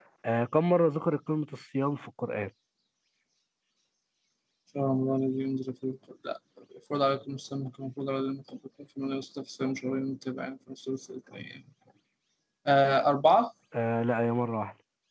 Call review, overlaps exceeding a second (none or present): none